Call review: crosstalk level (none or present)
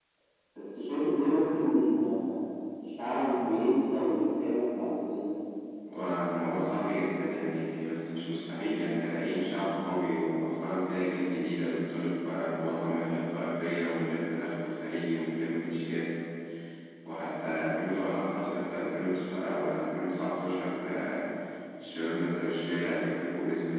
none